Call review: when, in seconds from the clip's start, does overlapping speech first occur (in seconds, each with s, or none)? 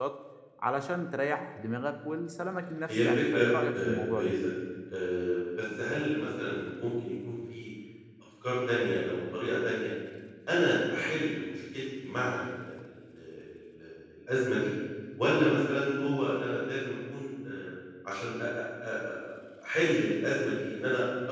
2.9 s